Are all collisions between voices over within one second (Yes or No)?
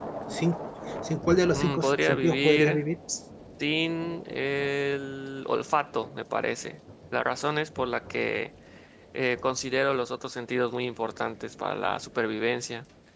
No